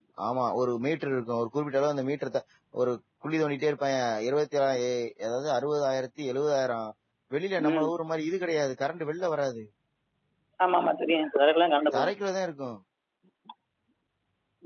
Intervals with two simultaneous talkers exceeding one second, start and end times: none

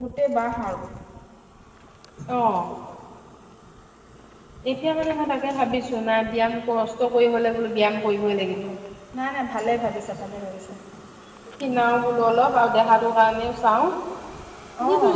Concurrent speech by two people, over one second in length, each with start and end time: none

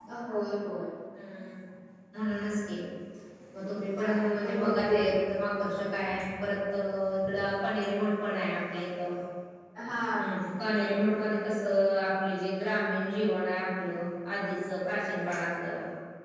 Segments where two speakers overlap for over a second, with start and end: 3.6-5.0

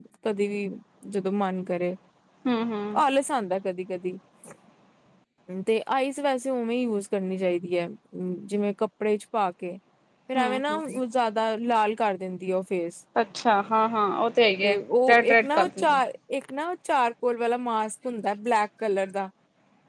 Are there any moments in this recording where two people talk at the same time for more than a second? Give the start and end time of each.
14.6-16.0

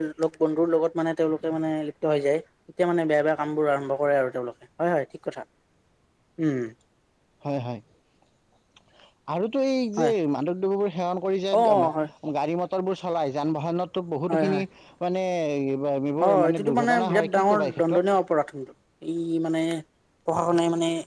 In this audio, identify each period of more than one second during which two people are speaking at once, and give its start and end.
16.2-18.0

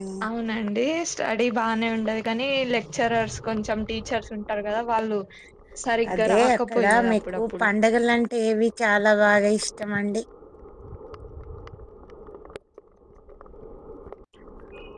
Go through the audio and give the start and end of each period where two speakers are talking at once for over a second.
6.1-7.7

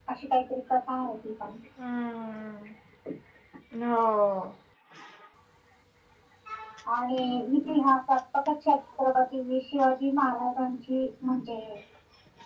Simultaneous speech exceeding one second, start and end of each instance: none

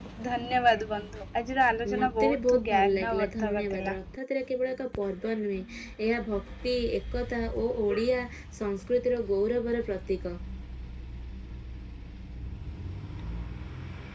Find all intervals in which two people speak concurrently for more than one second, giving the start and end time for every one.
2.0-4.0

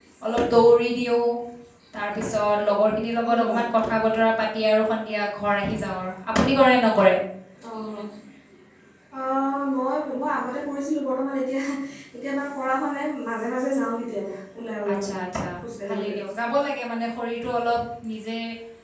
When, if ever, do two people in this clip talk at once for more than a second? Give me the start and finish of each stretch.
none

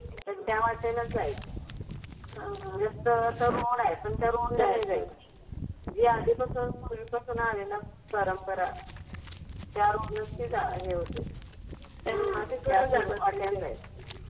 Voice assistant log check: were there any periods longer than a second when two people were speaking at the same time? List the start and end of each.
12.1-13.6

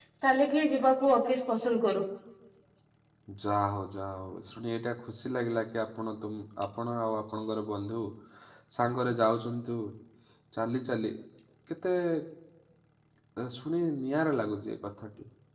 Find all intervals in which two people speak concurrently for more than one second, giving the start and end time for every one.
none

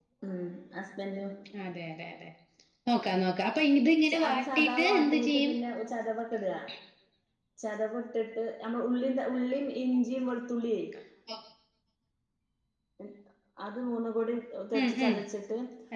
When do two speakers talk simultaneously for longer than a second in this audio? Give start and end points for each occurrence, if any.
4.3-5.5

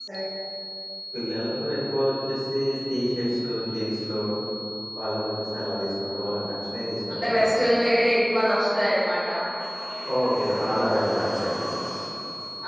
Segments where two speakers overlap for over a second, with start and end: none

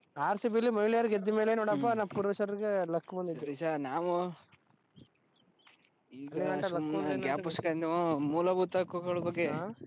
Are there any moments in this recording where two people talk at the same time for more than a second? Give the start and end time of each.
6.3-7.7

